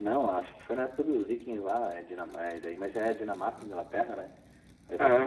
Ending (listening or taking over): listening